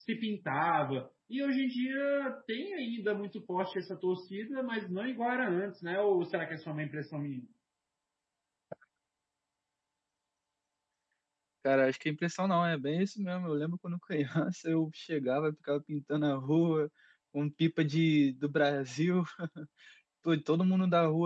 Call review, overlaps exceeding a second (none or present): none